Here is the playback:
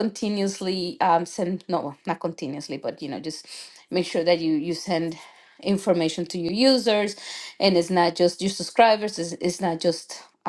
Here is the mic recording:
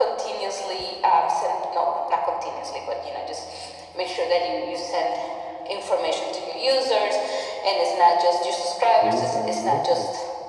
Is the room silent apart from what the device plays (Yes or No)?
No